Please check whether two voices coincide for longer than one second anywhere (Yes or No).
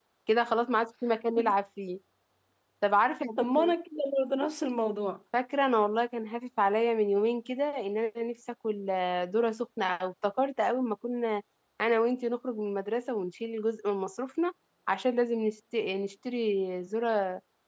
No